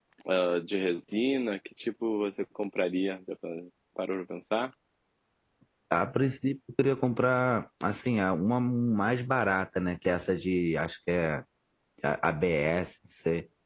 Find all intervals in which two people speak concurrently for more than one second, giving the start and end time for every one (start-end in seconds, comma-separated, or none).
none